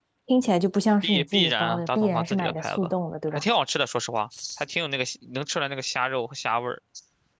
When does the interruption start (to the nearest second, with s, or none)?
1 s